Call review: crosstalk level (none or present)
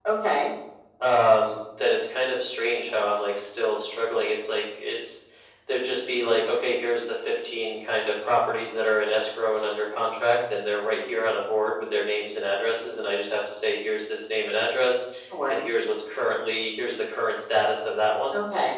none